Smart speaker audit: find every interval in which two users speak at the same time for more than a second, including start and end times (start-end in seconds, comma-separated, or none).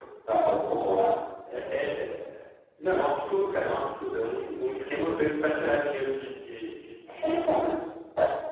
none